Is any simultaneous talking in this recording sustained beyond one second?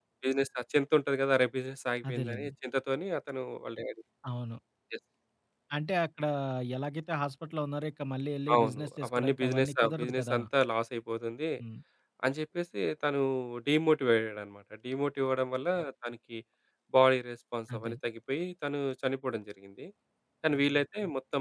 Yes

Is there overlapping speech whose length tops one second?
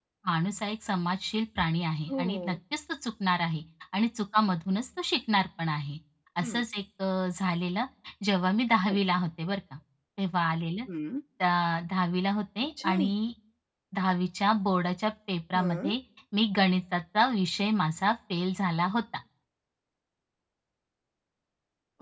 No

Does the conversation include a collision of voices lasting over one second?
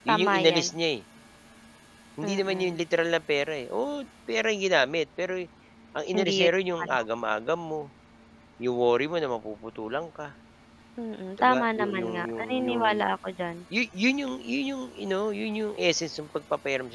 Yes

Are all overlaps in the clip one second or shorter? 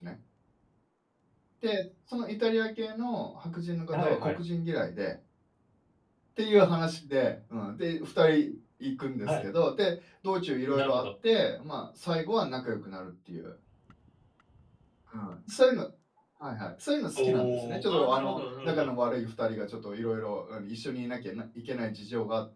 No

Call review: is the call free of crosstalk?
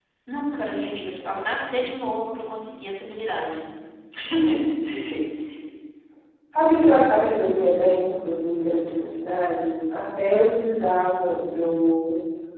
Yes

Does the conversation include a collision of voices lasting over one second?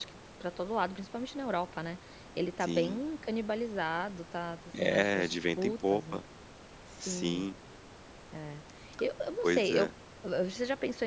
Yes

